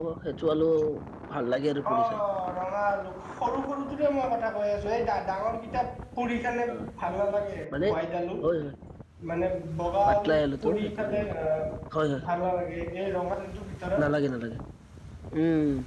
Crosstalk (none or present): present